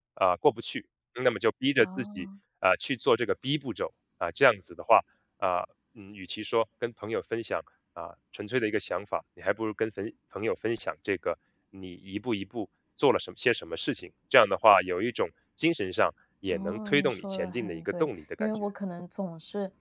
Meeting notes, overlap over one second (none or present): present